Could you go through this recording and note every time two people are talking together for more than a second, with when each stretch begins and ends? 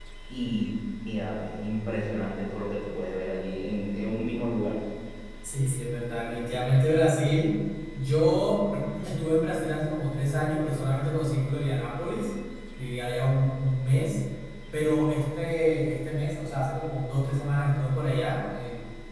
none

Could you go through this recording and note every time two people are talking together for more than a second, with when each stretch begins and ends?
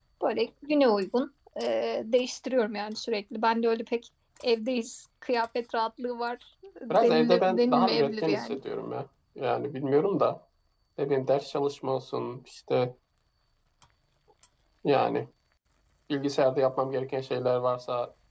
6.9-8.6

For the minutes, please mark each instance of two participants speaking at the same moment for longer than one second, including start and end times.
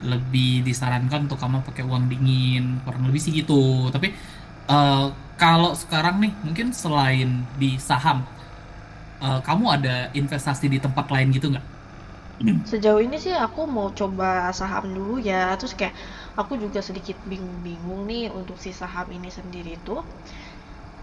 none

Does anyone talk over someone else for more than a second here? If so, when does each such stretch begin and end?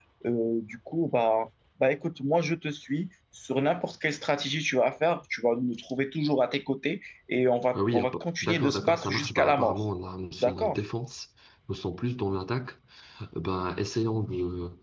8.4-9.8

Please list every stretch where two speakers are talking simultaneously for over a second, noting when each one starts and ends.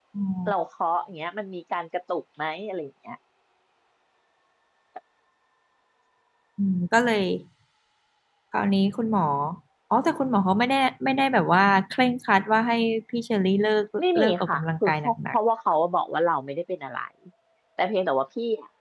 14.2-15.4

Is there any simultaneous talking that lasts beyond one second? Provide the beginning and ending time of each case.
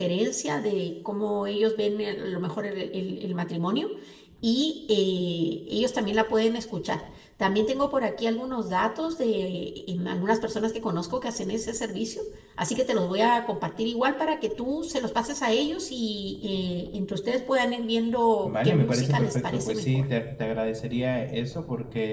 18.4-20.0

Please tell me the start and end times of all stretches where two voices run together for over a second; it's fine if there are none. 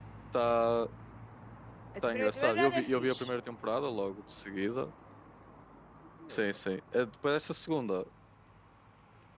2.0-3.2

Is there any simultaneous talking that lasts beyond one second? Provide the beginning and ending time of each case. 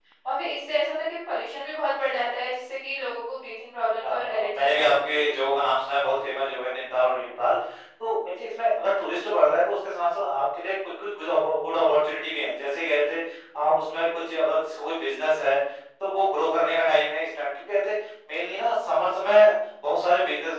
4.0-5.4

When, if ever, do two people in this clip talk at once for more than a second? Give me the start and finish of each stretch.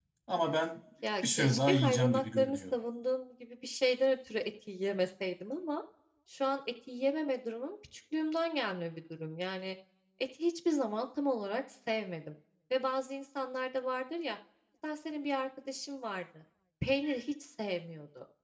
1.2-2.6

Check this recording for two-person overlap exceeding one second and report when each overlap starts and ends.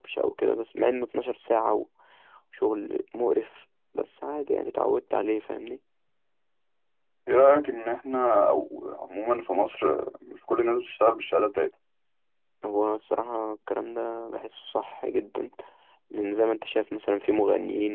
none

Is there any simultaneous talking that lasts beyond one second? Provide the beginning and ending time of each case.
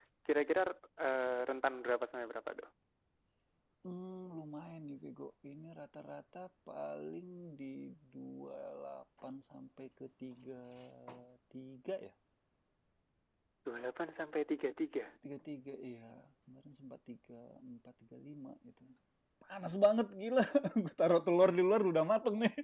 none

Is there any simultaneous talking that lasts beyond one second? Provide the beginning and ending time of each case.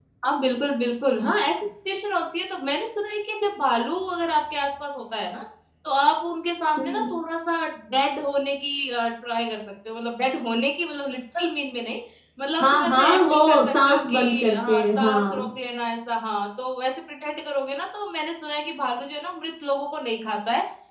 12.6-15.5

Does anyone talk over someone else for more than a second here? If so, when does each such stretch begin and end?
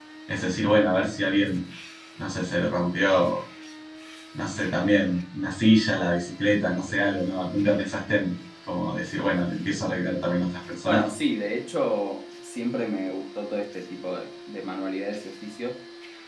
none

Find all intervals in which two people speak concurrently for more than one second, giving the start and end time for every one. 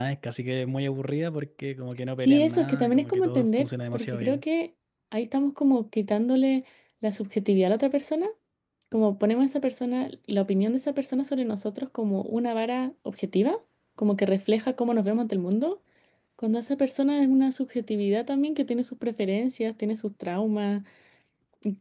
2.2-4.4

